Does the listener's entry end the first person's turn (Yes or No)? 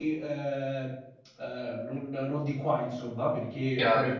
No